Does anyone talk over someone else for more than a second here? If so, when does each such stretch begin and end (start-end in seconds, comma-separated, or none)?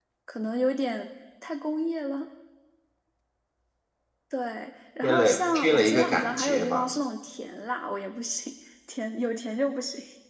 5.0-6.9